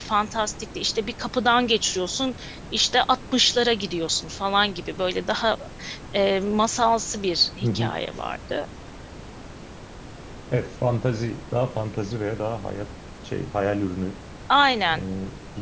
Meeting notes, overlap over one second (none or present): none